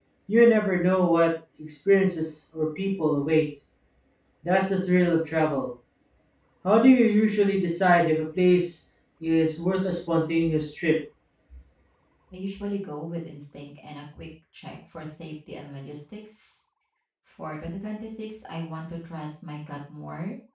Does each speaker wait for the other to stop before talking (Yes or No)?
Yes